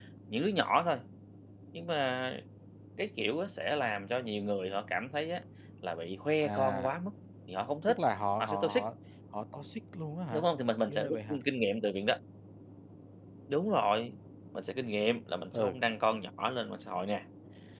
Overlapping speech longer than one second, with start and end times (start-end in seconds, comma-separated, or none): none